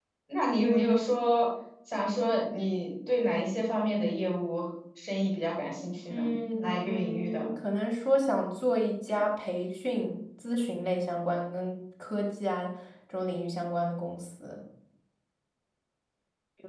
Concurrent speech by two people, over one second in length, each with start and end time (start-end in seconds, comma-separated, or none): 6.1-7.5